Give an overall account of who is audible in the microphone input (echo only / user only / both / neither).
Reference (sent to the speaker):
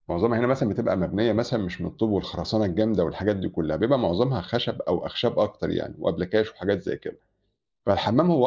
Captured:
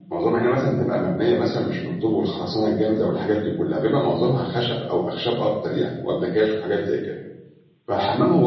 echo only